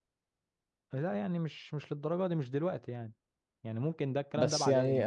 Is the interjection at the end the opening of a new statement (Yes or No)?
Yes